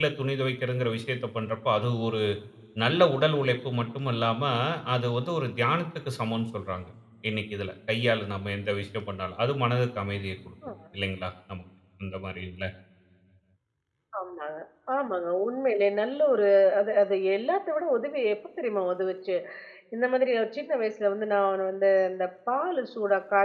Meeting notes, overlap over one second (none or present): none